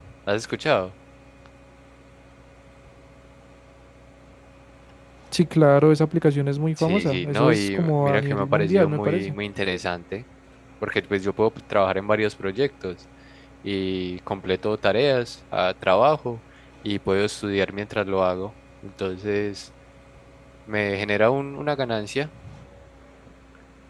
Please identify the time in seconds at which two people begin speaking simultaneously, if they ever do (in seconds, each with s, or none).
6.8 s